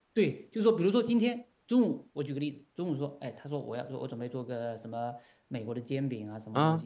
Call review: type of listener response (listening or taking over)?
listening